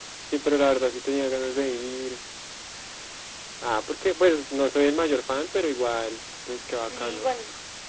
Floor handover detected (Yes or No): Yes